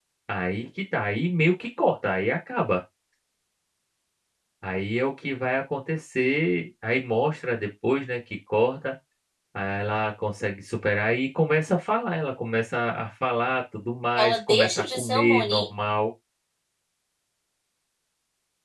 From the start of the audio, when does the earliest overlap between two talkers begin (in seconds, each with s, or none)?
14.2 s